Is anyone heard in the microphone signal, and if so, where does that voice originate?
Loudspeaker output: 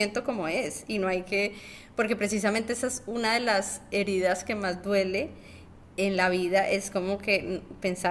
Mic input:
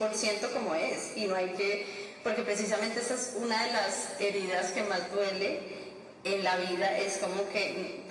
echo only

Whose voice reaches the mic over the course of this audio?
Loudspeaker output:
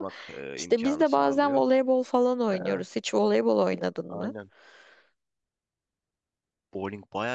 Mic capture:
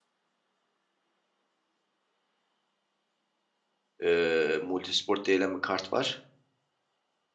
user only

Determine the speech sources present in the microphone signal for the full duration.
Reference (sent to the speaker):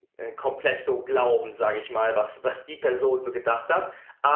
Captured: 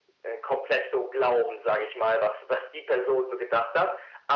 echo only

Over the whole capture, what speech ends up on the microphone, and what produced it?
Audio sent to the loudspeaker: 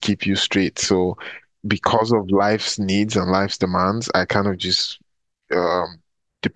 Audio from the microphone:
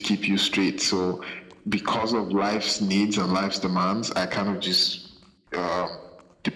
echo only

